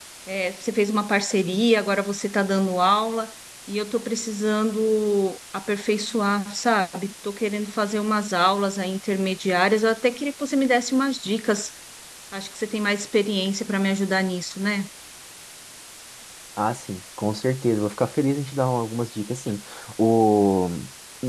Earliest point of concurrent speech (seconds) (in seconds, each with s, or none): none